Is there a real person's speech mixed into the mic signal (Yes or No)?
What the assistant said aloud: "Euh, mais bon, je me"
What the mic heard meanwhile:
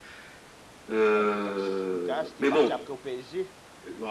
Yes